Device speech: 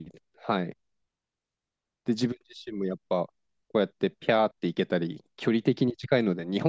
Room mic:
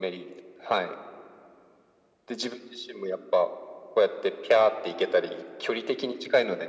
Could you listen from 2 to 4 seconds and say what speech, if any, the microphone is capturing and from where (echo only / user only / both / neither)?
echo only